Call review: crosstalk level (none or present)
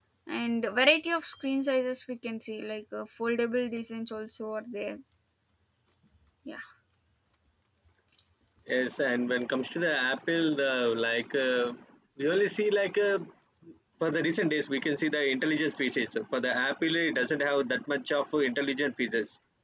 none